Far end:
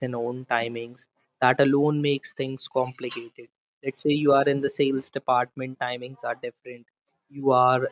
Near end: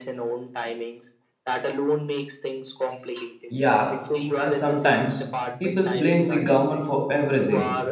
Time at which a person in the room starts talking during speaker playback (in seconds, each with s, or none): 3.5 s